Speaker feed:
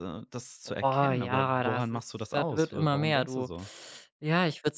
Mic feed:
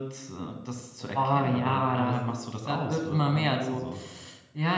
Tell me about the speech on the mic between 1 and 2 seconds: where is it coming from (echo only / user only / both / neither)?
echo only